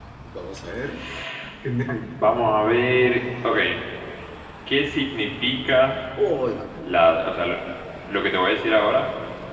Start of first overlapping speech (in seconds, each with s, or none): none